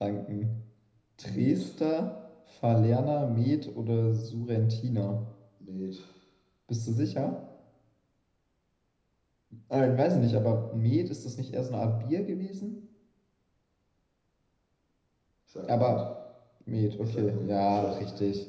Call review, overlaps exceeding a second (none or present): present